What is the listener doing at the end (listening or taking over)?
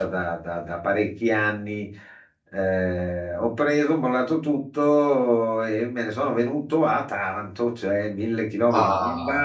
listening